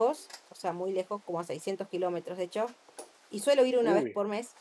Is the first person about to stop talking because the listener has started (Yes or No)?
No